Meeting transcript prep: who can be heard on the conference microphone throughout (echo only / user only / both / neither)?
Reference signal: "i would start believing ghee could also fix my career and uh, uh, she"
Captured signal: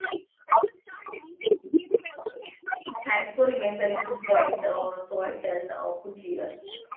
both